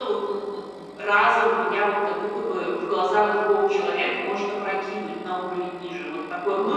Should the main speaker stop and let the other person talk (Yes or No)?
Yes